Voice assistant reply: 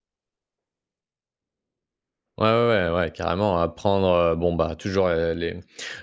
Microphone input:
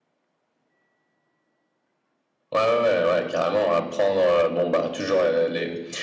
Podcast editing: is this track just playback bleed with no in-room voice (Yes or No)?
Yes